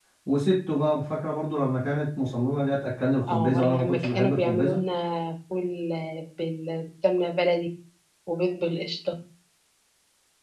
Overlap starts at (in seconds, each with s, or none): 3.3 s